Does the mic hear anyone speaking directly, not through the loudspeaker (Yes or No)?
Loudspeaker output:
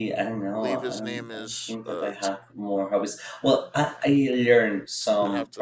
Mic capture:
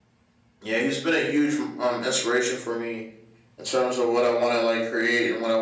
Yes